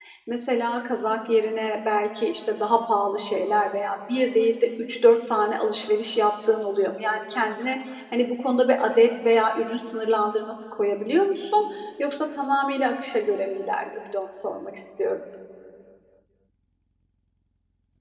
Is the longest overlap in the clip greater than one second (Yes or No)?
No